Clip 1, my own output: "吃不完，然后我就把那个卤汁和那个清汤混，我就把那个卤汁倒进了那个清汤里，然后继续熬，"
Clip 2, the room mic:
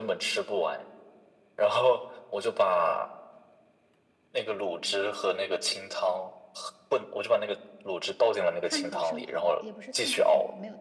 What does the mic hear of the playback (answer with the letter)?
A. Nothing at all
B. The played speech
B